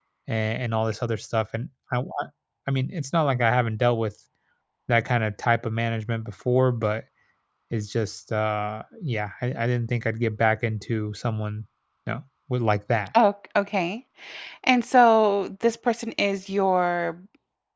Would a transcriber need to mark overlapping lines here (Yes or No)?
No